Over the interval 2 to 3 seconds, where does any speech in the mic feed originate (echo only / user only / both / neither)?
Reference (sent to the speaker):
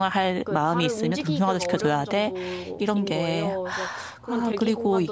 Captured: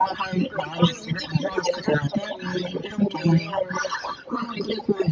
echo only